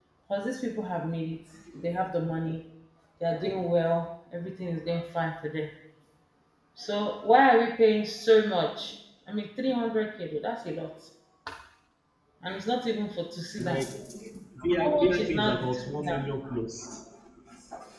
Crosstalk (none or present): present